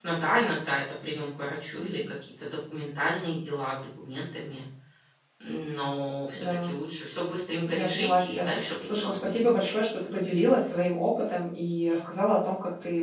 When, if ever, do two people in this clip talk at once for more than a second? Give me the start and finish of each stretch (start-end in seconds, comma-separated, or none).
7.7-9.4